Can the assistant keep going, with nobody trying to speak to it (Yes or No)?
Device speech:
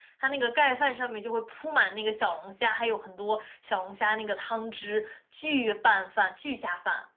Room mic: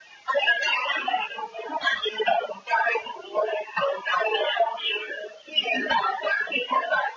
Yes